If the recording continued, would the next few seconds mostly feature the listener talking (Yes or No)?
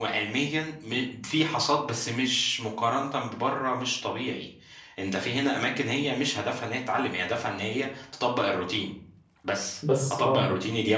No